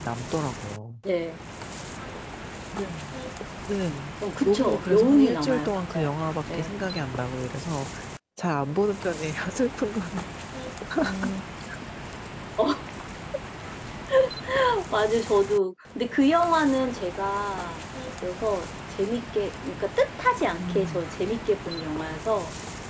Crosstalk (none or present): present